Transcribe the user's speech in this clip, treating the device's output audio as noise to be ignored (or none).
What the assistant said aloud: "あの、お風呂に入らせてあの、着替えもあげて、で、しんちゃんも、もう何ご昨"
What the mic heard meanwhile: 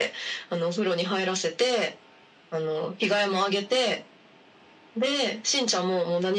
none